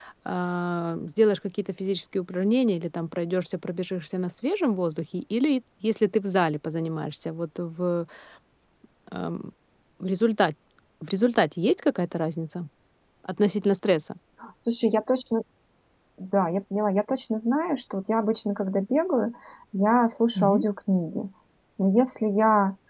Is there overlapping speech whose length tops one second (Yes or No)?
No